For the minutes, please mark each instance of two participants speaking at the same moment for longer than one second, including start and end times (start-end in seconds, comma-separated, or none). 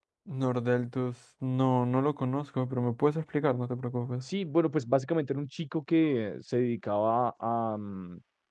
none